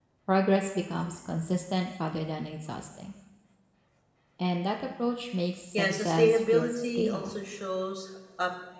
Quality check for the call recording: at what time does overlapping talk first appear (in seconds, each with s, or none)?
5.7 s